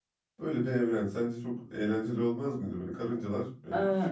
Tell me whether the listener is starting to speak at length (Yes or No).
No